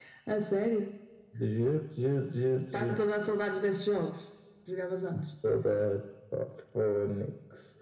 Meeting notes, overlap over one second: none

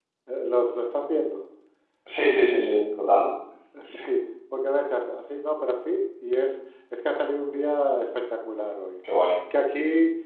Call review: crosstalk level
none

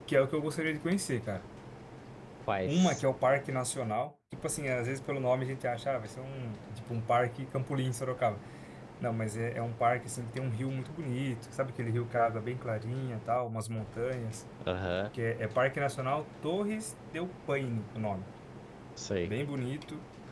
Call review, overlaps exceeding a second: none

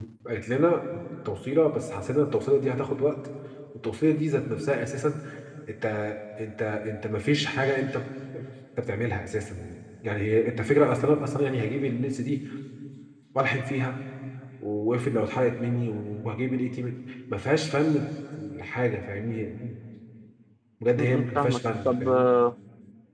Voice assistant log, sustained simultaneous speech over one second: present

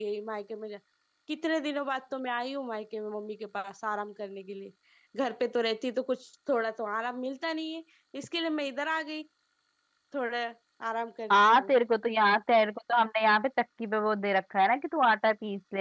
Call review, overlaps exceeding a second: none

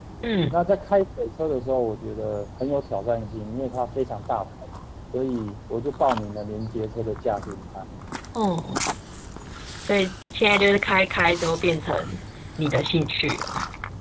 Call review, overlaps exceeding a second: none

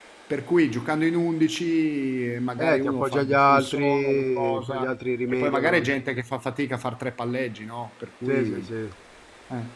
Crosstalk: present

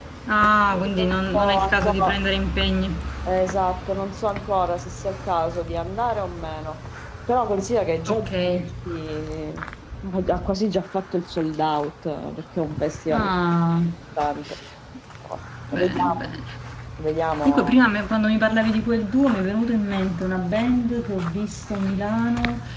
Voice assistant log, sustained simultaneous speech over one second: present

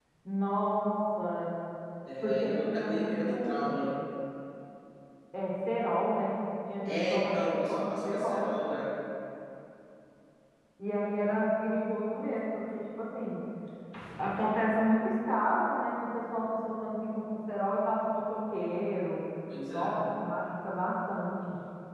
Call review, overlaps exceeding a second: present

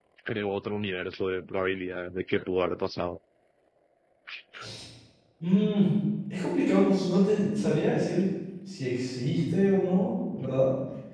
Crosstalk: none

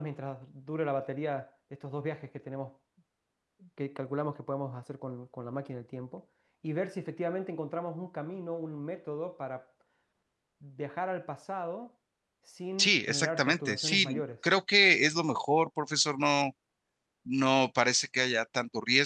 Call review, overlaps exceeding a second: present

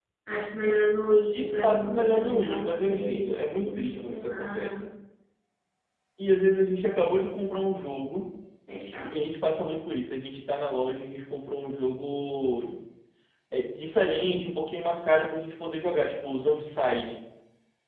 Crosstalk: present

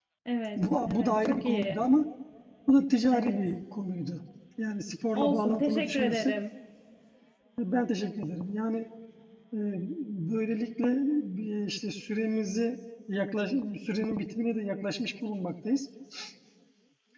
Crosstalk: present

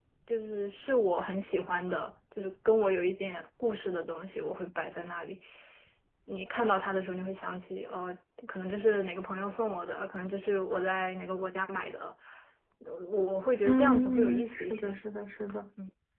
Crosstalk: present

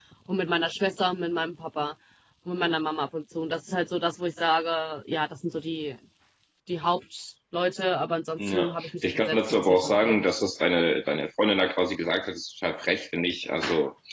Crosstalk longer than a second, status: present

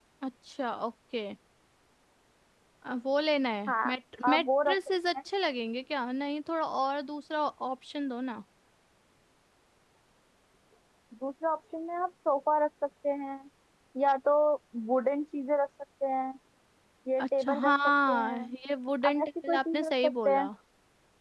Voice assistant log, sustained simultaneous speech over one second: present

